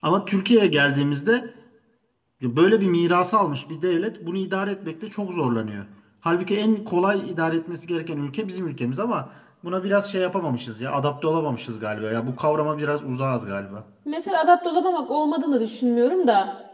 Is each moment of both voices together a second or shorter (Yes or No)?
Yes